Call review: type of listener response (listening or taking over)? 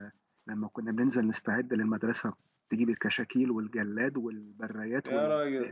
taking over